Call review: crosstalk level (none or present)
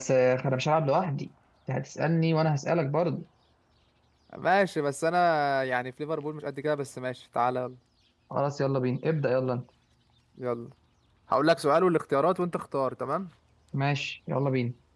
none